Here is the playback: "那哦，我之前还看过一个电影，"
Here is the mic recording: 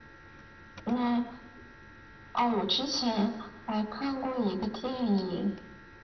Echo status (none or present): present